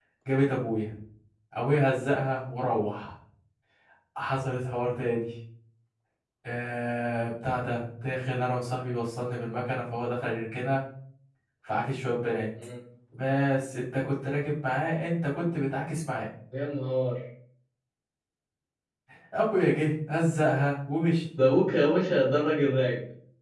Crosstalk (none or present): none